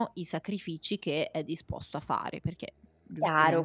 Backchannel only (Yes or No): No